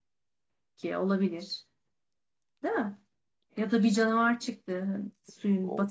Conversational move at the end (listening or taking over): taking over